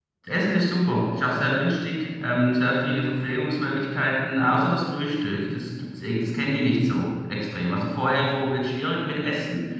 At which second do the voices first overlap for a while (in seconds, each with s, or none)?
none